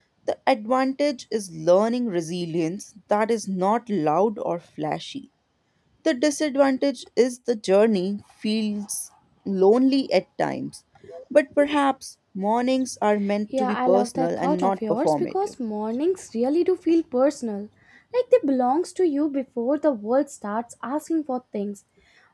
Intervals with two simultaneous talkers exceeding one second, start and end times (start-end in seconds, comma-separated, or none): 13.6-15.5